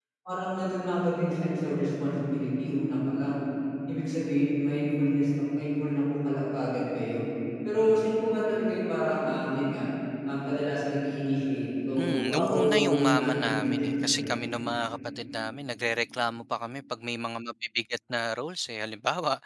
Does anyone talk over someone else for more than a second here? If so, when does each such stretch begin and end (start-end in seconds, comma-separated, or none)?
12.0-14.4